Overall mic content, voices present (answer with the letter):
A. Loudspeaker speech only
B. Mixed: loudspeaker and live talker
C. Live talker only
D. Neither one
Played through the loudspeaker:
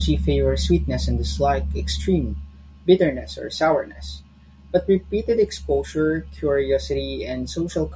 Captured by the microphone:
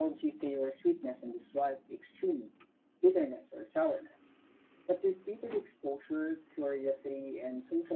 A